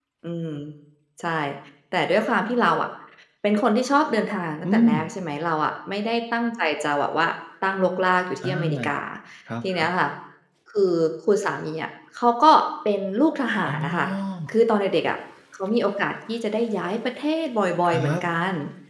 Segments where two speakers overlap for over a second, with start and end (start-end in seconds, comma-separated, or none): none